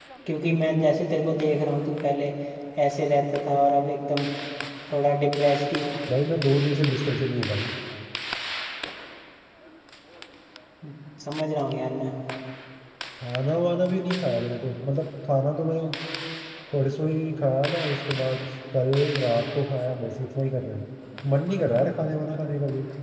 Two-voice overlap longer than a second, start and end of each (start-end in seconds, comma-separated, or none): none